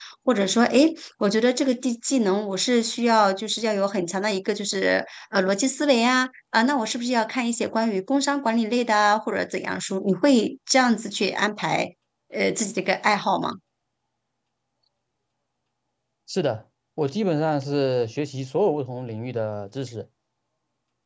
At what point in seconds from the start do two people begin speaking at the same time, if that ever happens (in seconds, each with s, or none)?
none